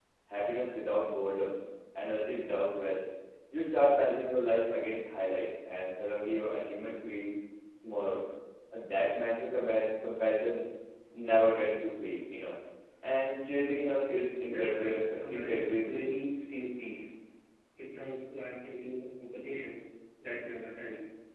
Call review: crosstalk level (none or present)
present